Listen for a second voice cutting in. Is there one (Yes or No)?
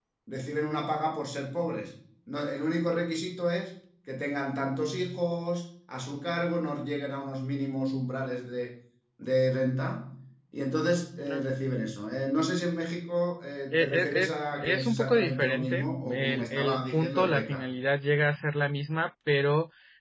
Yes